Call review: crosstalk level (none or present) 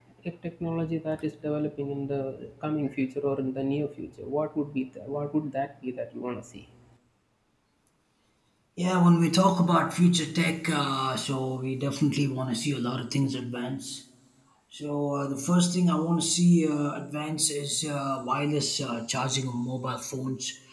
none